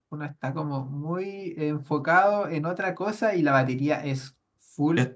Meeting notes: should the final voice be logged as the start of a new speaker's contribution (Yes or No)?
No